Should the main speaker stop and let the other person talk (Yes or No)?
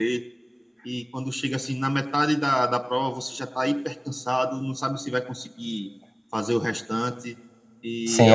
Yes